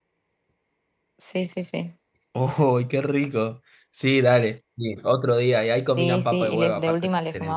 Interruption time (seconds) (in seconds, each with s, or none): 6.0 s